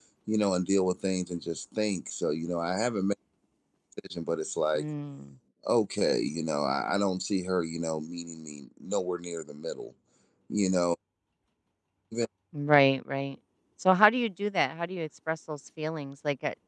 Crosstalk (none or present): none